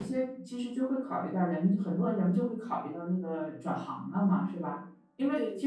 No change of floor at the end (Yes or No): Yes